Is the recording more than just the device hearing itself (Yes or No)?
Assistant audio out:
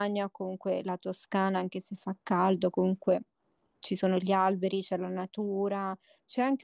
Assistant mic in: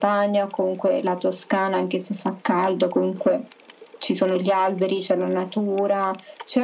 No